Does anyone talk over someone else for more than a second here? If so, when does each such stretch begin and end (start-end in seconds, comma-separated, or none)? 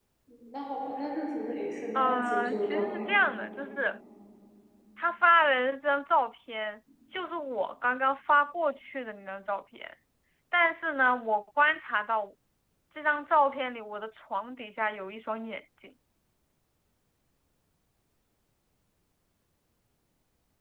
1.9-3.1